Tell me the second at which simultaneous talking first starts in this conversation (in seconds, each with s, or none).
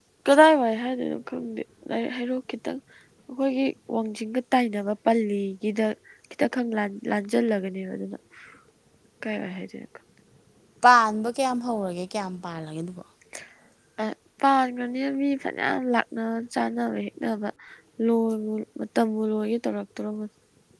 none